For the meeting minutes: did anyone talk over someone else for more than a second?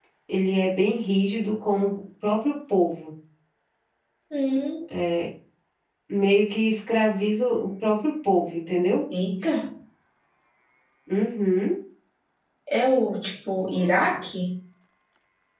No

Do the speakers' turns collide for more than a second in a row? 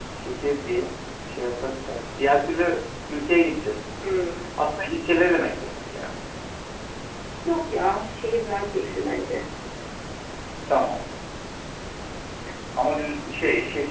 No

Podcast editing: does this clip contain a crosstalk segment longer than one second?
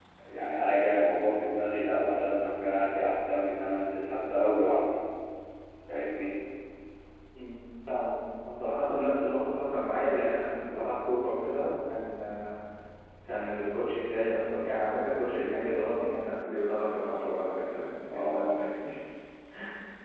No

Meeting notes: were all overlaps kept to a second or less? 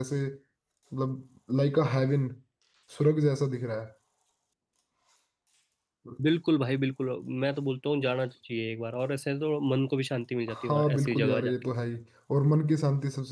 No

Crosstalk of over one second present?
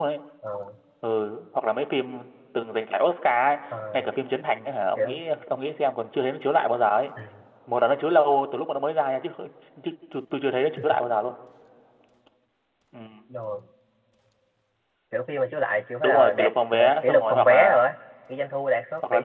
Yes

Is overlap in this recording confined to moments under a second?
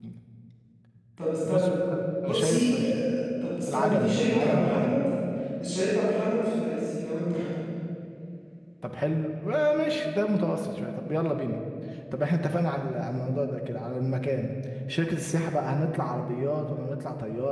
No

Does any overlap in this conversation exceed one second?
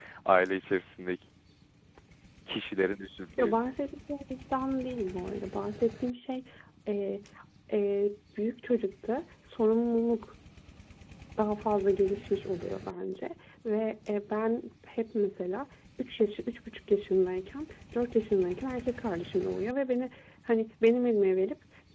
No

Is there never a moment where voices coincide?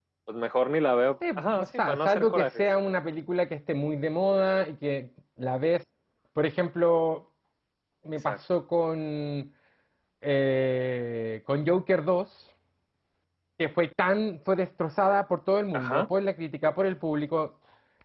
No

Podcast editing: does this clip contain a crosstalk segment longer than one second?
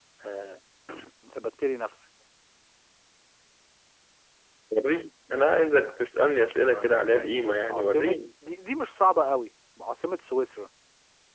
Yes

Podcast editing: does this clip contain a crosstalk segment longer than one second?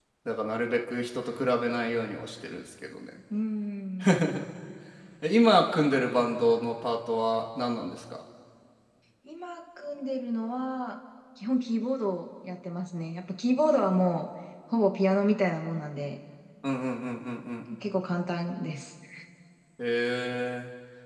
No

